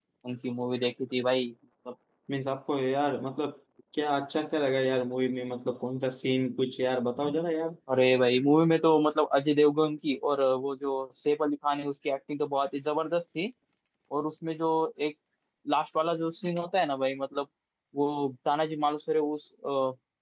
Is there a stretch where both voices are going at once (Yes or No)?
No